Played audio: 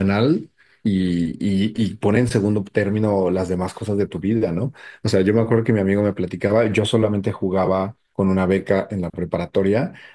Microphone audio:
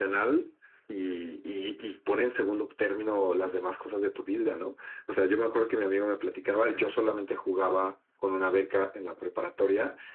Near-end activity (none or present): none